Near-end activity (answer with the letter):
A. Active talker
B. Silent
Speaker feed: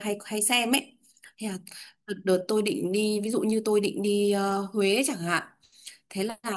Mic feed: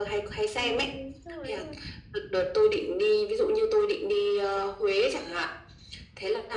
A